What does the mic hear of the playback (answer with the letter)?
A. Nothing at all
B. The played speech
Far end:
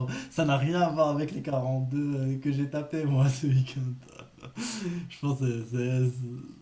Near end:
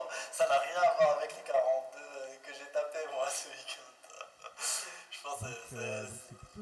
B